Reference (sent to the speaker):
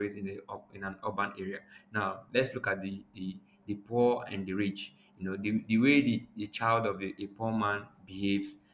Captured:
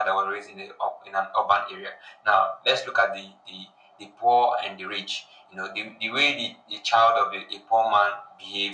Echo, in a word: present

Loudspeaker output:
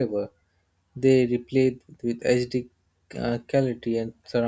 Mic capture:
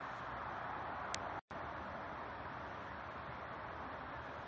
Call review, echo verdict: none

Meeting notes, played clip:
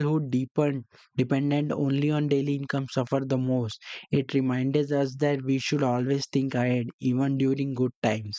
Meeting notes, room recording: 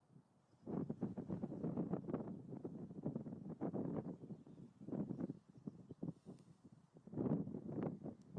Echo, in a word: none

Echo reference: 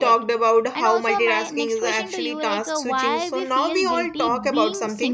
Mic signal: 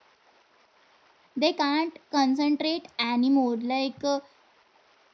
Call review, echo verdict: none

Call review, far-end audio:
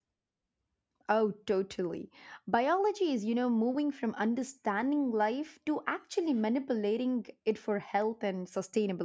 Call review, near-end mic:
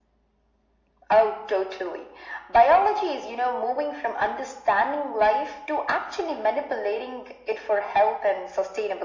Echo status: present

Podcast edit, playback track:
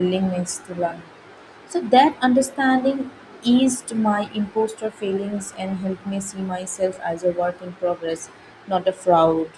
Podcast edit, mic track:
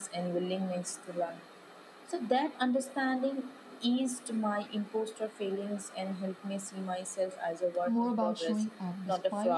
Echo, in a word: present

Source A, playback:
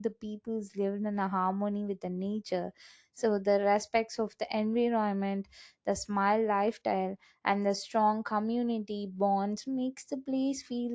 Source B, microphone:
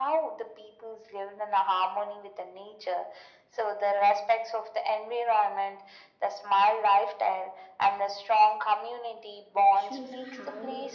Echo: present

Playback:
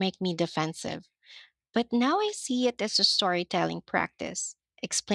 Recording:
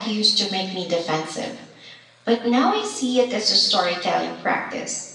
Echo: present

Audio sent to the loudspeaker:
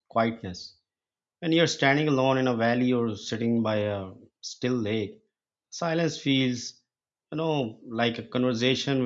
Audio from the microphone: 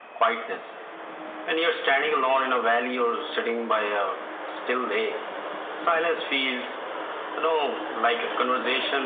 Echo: present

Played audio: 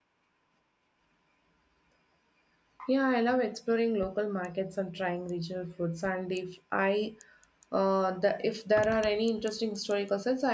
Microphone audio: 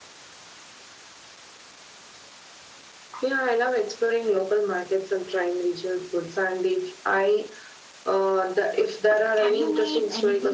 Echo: present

